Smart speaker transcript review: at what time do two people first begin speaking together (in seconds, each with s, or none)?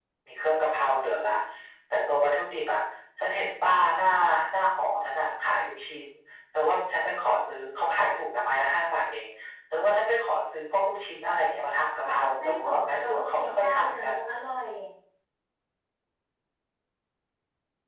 12.0 s